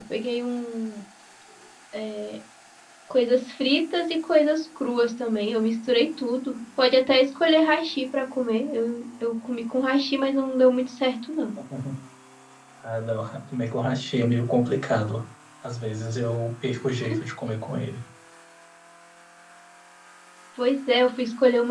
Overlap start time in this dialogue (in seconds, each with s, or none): none